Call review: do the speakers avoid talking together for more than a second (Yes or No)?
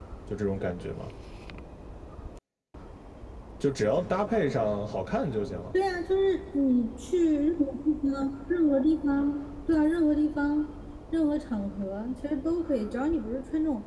Yes